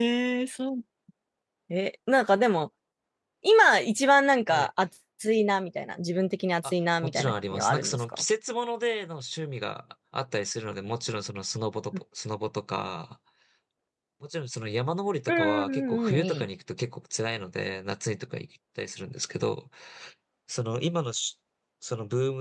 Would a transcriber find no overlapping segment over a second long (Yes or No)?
No